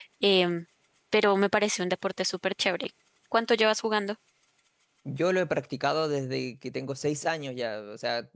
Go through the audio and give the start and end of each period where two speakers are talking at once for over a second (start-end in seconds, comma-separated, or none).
none